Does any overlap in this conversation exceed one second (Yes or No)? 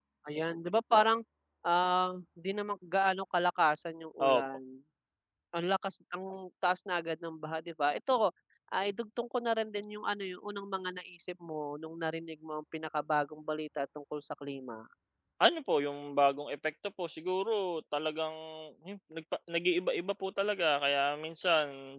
No